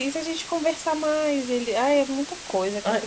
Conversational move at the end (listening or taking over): taking over